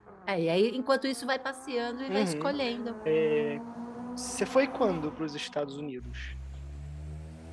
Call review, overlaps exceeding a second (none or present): none